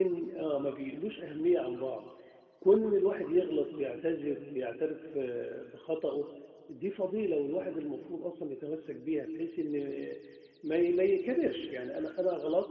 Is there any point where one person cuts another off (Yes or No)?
No